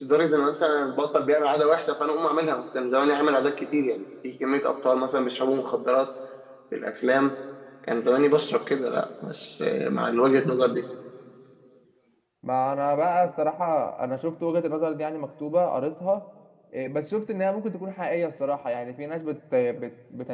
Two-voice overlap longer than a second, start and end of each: none

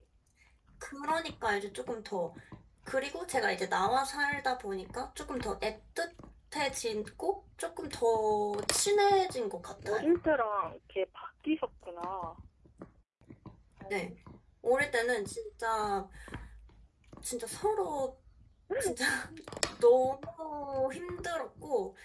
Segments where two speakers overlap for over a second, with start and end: none

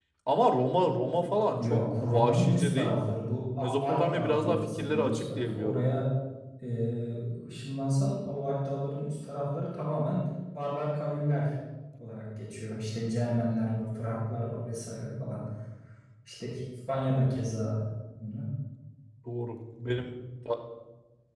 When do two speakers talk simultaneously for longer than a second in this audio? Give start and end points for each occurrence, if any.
1.6-3.2, 3.6-6.0

